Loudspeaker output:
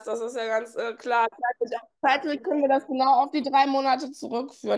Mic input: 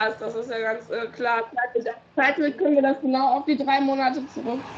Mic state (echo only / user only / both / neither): echo only